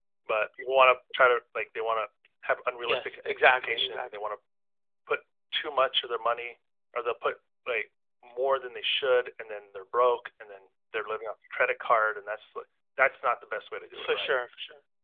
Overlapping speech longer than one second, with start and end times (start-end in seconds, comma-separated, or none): 2.8-4.2